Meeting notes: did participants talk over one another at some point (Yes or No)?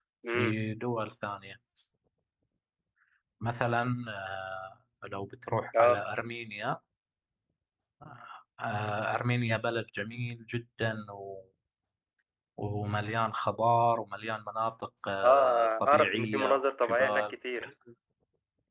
Yes